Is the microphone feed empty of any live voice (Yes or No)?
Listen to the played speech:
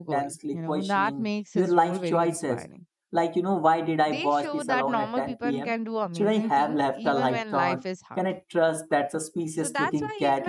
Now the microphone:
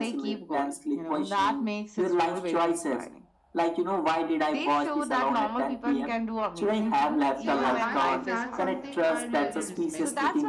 No